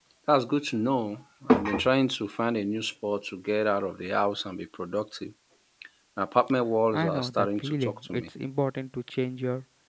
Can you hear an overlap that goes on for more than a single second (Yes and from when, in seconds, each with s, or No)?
Yes, from 6.9 s